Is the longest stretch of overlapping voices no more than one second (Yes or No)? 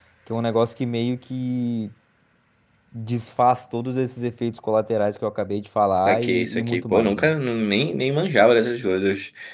No